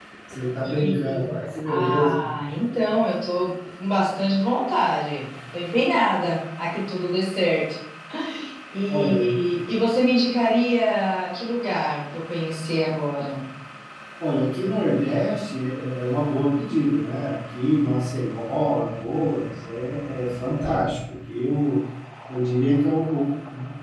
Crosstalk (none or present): present